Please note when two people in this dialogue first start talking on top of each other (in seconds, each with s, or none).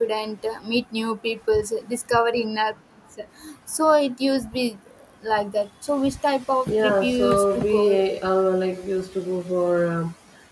6.7 s